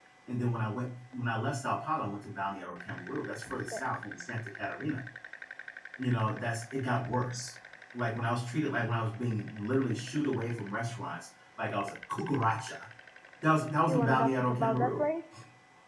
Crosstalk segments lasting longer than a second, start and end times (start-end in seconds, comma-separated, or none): 13.8-15.1